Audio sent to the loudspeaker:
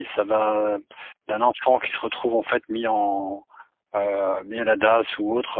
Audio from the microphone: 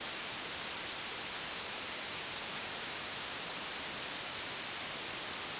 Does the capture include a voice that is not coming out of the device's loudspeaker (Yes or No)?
No